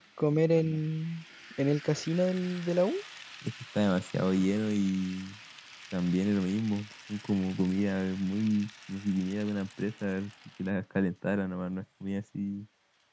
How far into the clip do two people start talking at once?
none

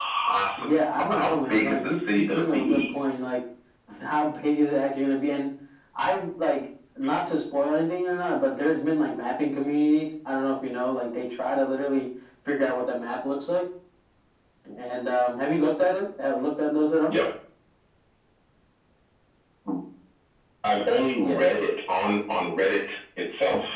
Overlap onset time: 0.8 s

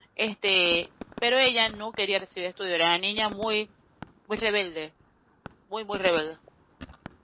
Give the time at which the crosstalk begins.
none

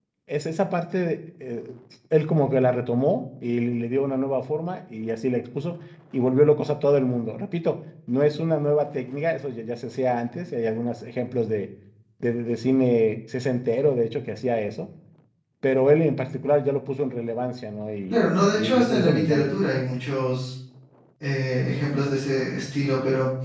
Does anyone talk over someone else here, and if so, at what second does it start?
18.1 s

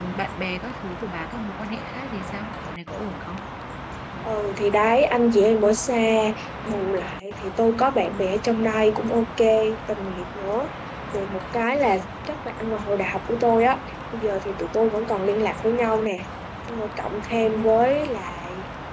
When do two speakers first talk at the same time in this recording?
none

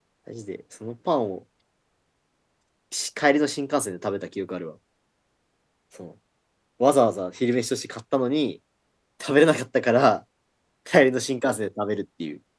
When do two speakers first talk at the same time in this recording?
none

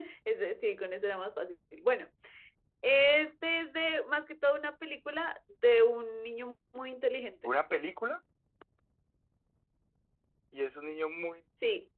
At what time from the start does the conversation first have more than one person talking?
none

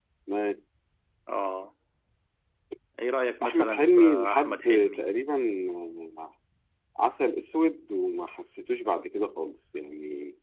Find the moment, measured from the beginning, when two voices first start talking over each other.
3.4 s

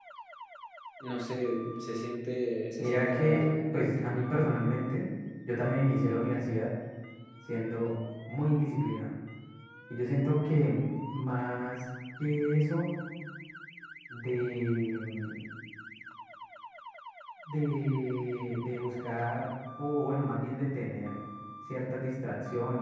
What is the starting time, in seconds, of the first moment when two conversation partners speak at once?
2.8 s

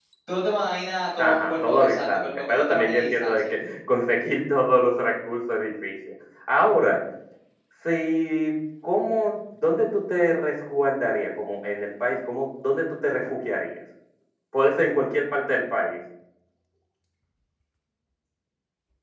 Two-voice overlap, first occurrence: 1.2 s

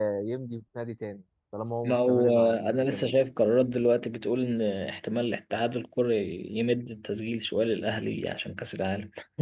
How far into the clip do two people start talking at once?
1.8 s

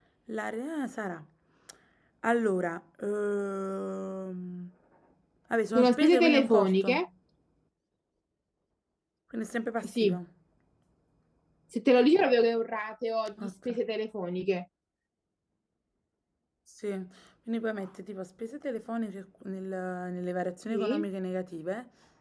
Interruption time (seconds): 5.8 s

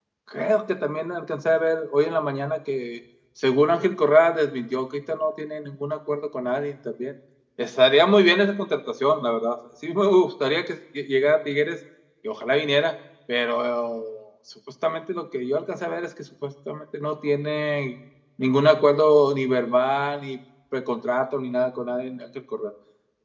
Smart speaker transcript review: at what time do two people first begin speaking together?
none

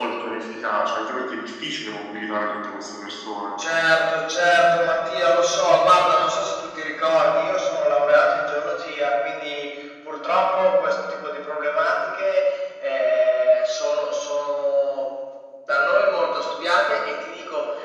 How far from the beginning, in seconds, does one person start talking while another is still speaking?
none

